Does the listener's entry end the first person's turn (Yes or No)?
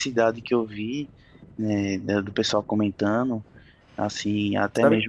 No